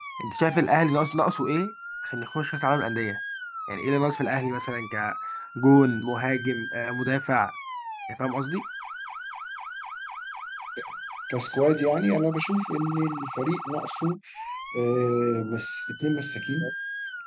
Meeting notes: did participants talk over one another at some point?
No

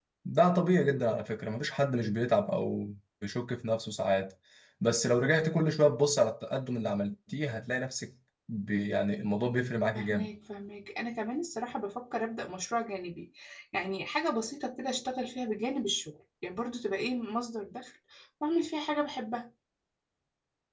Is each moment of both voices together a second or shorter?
Yes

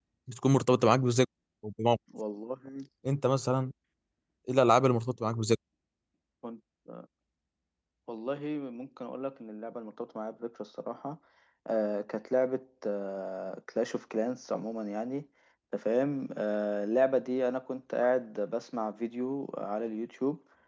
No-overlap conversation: Yes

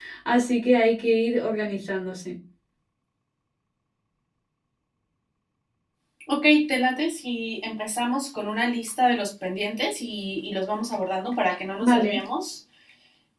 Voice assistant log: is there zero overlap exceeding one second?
Yes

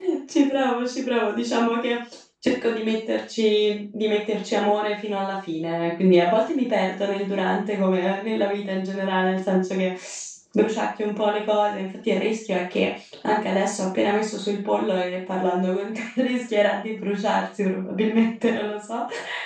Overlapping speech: No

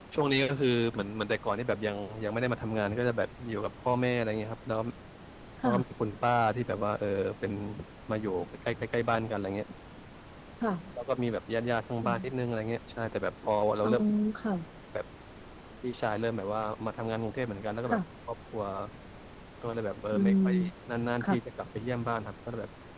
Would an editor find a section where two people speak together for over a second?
No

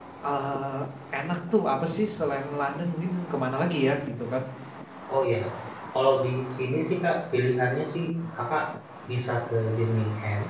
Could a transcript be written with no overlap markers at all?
Yes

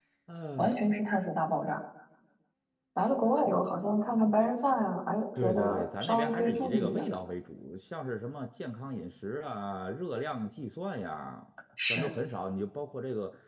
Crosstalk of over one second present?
Yes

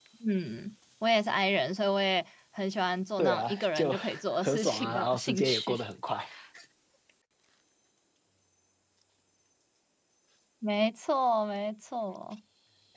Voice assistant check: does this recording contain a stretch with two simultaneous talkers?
Yes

